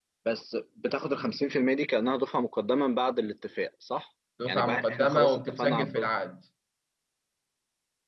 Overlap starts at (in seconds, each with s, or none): 4.4 s